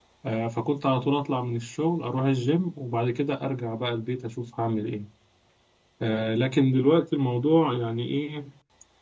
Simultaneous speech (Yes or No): No